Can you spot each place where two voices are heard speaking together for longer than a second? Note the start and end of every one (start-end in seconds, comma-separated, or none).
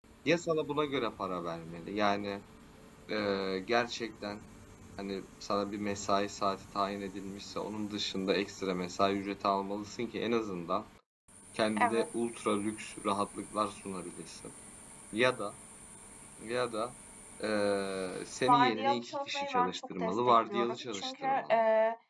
18.5-21.6